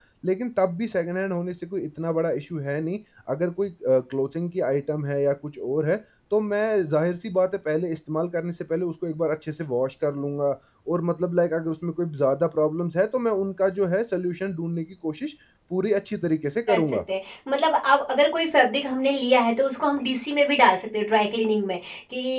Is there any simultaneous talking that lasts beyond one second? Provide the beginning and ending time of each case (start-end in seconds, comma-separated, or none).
none